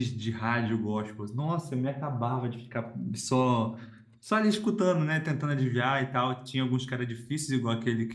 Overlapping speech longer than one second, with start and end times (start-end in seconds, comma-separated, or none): none